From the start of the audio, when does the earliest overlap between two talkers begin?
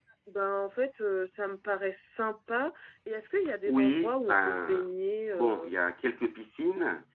3.7 s

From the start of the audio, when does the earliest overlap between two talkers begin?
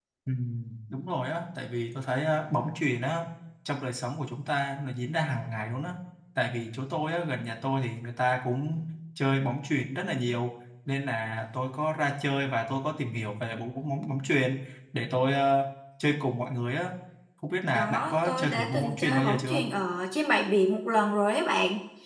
17.8 s

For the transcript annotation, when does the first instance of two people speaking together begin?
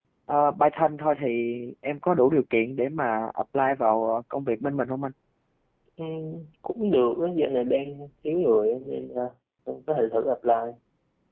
none

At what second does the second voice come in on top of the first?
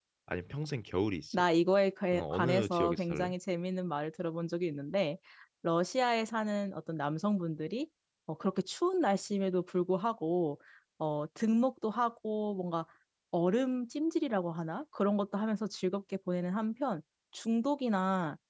2.1 s

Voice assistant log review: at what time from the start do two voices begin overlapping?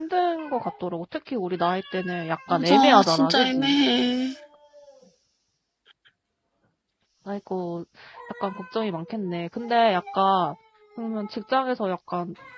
2.5 s

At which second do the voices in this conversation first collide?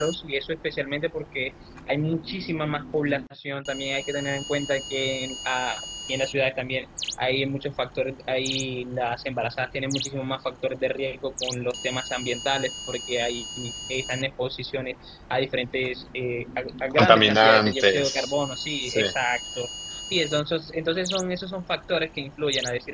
16.9 s

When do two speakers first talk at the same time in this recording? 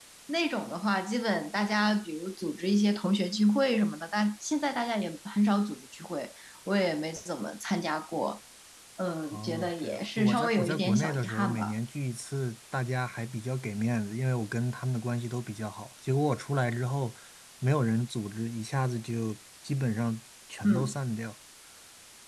9.3 s

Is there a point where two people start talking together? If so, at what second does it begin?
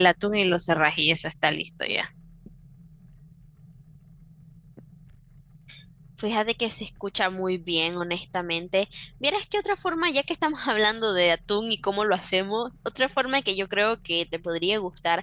none

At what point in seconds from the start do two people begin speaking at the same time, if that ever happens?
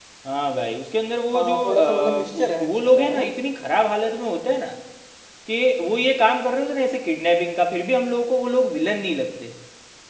1.3 s

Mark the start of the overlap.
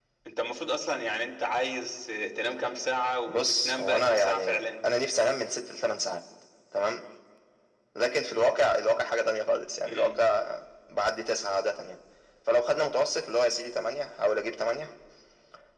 3.3 s

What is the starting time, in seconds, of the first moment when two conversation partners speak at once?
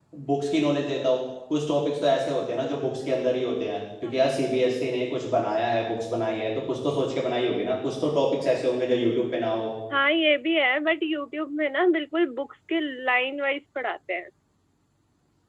none

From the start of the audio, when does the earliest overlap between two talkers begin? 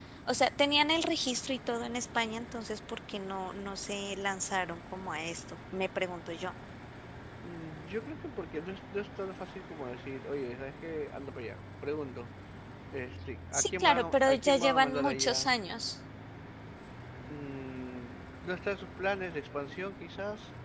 13.5 s

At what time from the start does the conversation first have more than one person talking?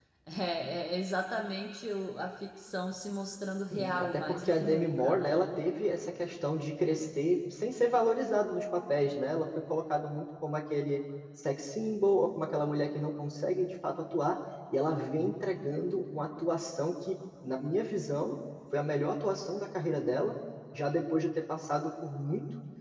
3.7 s

